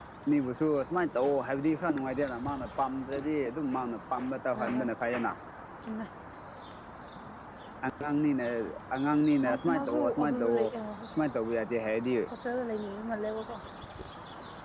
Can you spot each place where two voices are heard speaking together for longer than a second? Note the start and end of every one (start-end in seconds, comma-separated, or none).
9.4-10.7